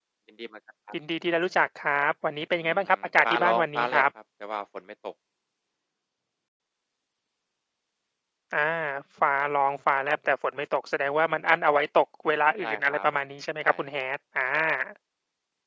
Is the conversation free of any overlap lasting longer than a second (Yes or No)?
No